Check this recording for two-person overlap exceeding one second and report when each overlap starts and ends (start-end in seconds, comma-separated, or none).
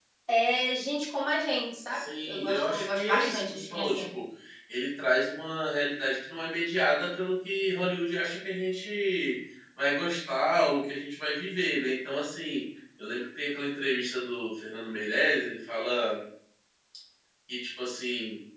1.9-4.0